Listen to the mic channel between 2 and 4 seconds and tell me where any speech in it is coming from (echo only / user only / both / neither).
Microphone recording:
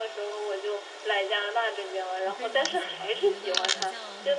both